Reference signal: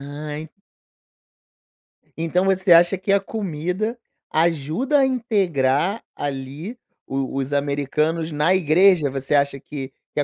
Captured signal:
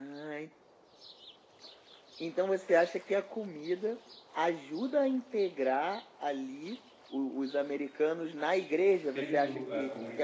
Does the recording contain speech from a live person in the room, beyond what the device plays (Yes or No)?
Yes